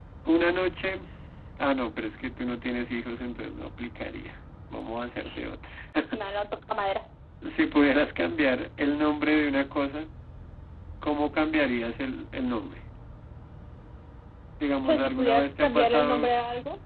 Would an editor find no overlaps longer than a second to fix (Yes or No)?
No